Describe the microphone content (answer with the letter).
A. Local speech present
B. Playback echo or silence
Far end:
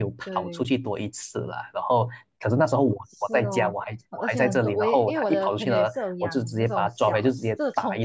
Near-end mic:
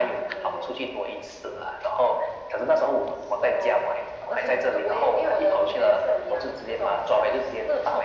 B